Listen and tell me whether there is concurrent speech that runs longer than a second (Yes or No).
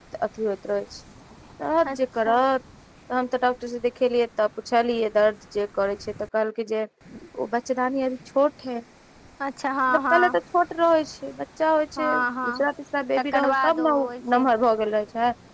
Yes